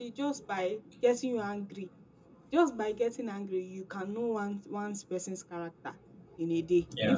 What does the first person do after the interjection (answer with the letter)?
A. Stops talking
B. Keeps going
B